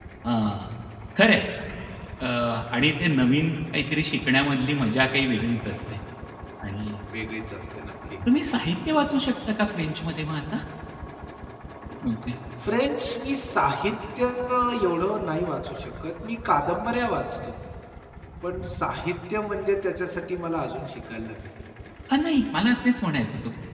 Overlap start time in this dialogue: none

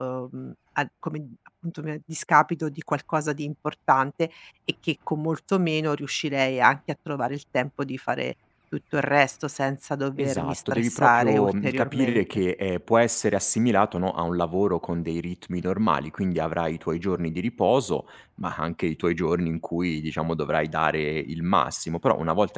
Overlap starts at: 10.2 s

